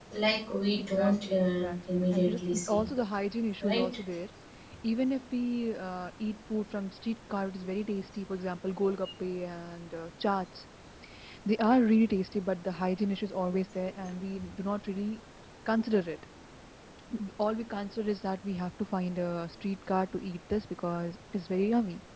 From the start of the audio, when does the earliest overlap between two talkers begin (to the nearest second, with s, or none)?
1 s